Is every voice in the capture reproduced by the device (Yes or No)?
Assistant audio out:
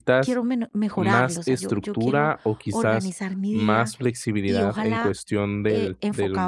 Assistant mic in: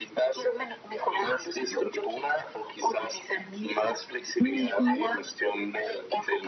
No